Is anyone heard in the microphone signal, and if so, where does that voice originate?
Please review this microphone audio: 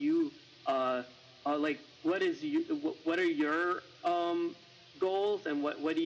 echo only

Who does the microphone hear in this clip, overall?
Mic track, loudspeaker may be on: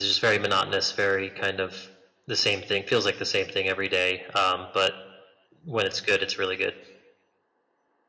user only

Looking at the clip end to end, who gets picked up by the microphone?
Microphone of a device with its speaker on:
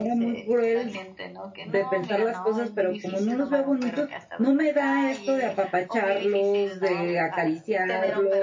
both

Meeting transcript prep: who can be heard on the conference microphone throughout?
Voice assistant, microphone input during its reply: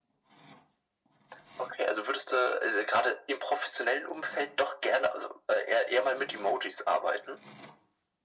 echo only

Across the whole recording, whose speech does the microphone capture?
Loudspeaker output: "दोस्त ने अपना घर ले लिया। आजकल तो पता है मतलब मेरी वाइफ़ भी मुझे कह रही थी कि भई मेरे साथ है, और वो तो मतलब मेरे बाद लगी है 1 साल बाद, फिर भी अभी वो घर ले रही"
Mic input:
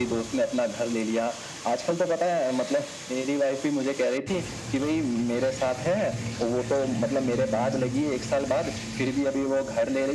echo only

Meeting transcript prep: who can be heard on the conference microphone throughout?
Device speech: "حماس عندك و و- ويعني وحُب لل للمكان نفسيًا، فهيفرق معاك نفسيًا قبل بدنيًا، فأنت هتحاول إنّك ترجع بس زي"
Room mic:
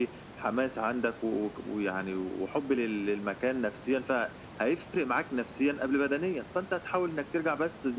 echo only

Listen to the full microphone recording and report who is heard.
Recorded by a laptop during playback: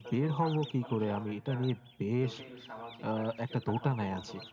both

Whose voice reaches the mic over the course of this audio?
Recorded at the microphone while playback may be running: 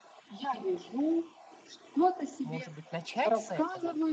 both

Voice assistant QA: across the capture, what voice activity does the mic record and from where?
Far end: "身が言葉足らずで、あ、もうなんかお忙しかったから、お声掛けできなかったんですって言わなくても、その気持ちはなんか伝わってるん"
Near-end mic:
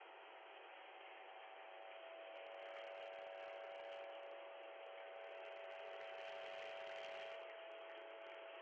neither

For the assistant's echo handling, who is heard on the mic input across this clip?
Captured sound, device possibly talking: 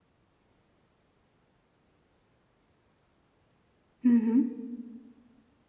user only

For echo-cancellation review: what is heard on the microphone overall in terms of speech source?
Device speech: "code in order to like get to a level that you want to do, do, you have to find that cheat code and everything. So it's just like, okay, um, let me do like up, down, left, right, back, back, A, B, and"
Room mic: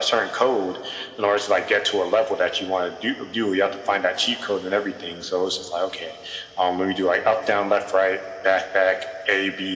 echo only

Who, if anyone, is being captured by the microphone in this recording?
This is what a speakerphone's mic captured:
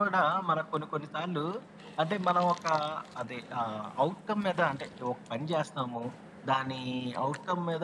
echo only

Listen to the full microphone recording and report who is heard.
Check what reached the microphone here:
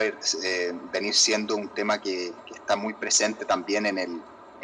echo only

